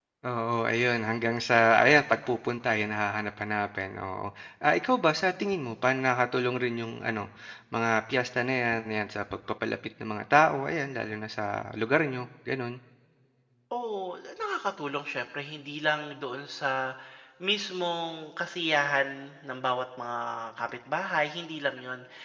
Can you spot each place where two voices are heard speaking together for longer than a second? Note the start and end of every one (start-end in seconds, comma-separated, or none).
none